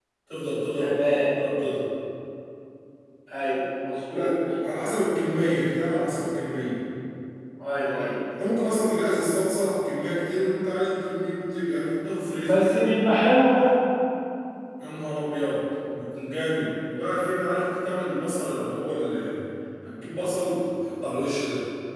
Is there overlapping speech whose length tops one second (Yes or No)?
No